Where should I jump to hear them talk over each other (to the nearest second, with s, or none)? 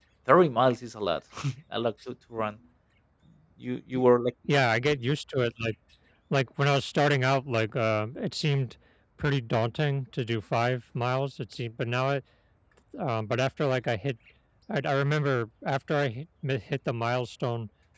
none